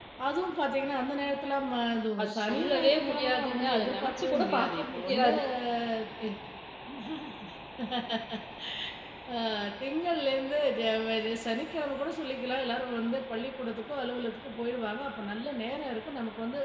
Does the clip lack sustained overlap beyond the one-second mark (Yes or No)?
No